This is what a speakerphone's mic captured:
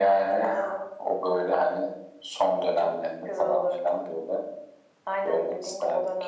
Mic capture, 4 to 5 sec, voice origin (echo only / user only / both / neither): echo only